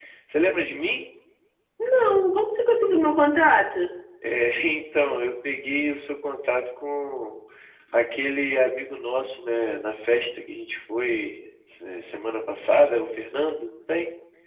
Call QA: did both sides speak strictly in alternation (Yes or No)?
Yes